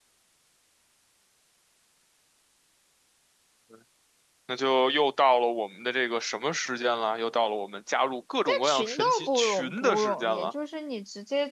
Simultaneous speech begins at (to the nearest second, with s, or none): 8 s